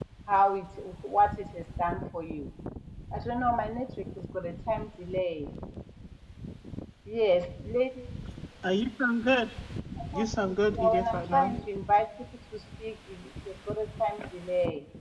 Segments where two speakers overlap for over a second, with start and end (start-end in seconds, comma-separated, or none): 10.1-11.6